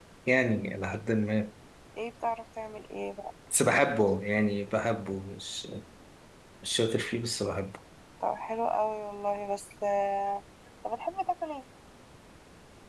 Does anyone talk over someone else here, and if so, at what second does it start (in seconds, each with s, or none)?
none